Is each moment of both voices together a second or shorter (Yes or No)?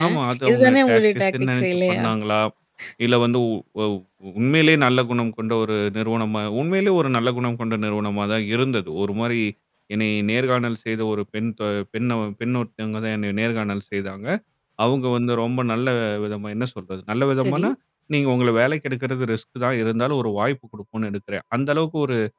No